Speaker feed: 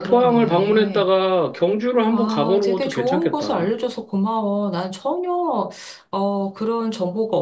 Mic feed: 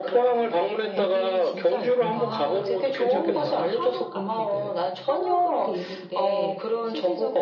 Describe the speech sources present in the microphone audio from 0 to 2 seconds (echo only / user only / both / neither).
both